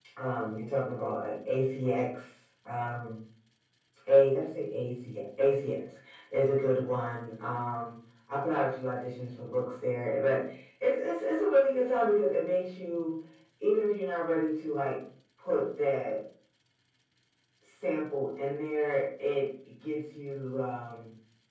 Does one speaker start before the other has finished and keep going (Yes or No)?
No